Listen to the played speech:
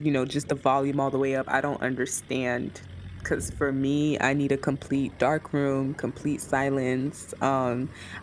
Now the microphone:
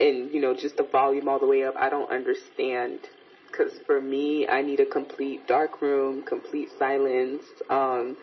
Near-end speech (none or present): none